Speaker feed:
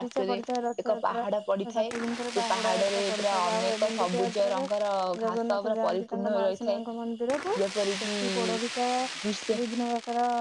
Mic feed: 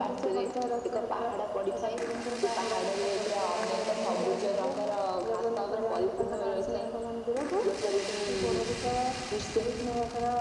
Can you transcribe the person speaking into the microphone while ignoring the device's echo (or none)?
none